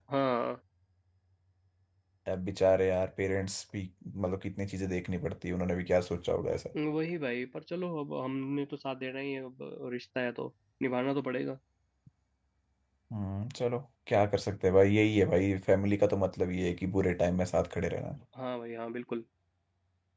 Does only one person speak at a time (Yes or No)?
Yes